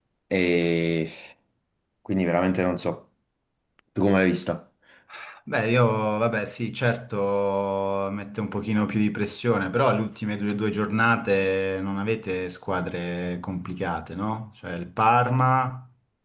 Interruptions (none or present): none